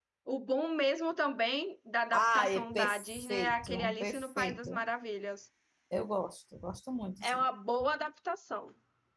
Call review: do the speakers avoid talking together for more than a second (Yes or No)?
No